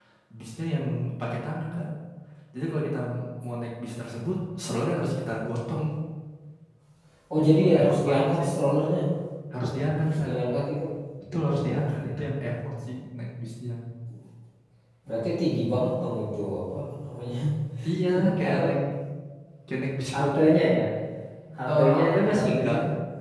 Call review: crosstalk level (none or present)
present